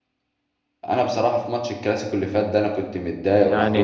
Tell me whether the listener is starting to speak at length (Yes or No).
Yes